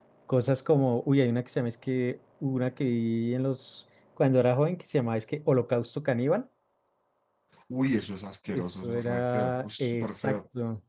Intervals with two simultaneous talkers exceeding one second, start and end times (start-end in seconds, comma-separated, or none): 8.5-10.4